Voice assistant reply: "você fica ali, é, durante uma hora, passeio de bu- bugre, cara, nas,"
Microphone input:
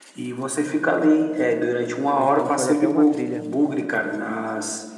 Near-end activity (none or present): present